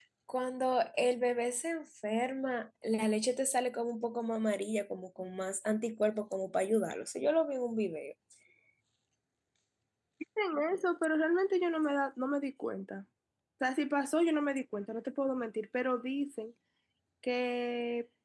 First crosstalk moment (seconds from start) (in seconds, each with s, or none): none